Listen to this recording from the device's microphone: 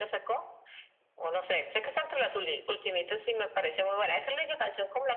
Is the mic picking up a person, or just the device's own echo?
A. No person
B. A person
A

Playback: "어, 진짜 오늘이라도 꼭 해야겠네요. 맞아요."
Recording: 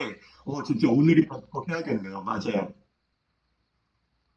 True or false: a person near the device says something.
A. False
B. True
A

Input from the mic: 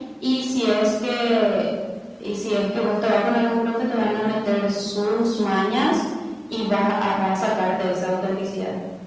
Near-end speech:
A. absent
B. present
B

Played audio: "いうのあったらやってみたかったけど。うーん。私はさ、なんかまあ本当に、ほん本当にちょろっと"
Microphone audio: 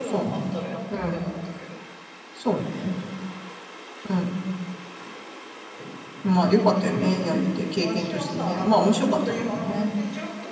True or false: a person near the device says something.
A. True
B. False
A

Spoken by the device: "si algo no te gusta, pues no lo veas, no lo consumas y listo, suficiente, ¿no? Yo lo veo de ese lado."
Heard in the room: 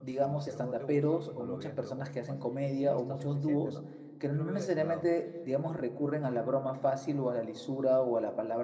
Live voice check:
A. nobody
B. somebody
B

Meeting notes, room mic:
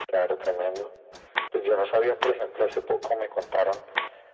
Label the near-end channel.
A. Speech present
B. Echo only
B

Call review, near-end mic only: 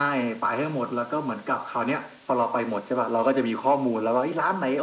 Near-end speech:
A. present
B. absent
B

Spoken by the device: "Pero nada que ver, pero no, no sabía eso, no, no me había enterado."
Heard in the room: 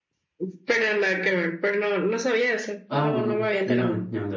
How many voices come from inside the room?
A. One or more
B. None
A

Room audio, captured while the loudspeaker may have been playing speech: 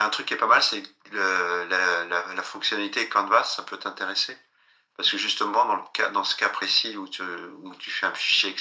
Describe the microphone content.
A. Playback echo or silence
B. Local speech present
A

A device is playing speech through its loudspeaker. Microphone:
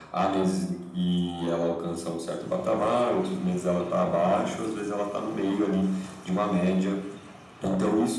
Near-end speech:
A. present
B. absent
B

